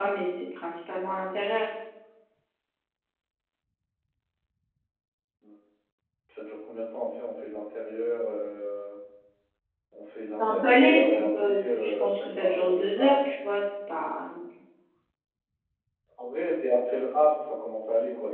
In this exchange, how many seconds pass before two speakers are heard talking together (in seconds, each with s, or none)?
10.4 s